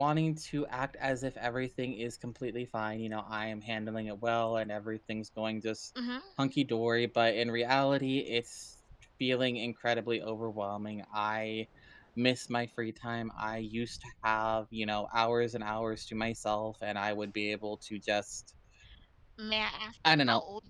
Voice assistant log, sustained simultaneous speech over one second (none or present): none